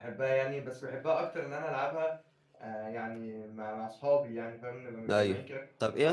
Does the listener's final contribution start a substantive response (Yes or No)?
Yes